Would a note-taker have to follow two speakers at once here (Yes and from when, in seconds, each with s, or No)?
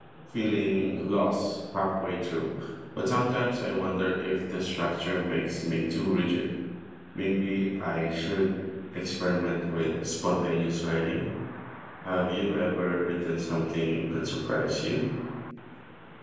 No